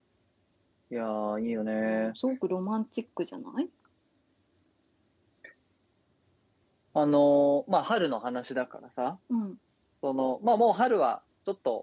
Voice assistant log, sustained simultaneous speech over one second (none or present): none